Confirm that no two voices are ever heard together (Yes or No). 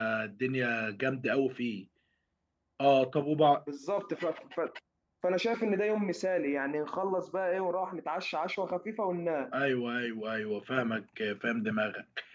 Yes